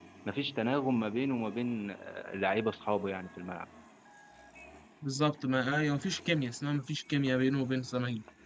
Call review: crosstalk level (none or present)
none